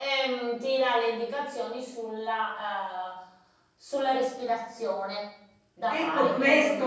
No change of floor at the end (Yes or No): No